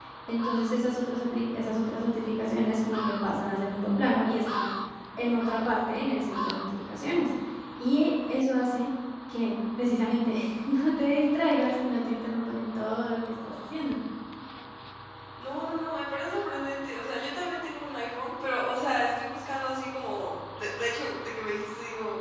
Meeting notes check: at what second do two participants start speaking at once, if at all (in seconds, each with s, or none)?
none